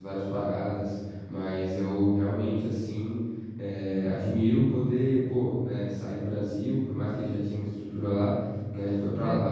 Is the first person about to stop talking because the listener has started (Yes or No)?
No